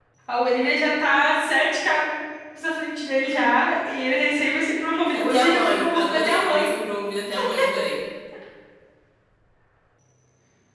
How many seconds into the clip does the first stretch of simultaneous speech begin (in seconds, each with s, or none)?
5.1 s